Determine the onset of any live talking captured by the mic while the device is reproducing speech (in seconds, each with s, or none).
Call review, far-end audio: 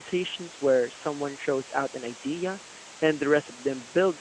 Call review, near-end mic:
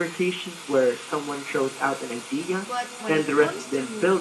2.6 s